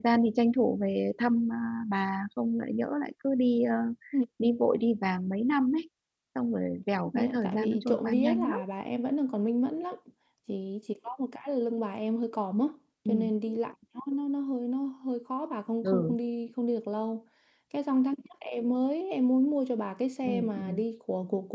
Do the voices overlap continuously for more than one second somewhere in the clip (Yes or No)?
Yes